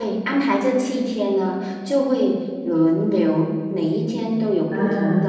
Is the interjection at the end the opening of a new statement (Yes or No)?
No